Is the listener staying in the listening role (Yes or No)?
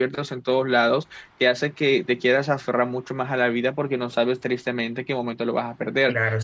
No